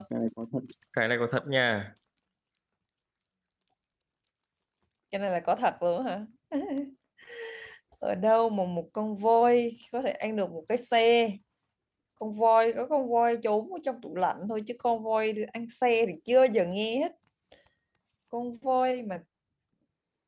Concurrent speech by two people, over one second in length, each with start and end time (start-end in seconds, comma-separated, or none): none